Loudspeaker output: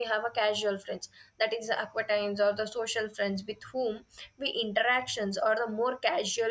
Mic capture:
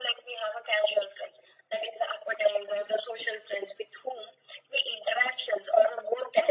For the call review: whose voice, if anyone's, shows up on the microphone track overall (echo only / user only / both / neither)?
echo only